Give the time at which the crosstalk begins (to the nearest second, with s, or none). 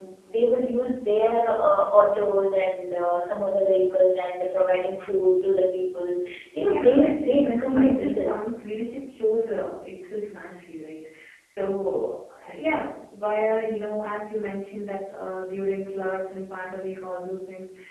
7 s